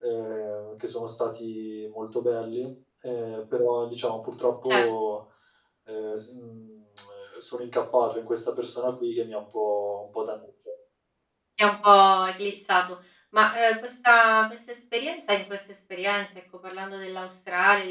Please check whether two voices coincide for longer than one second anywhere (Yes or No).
No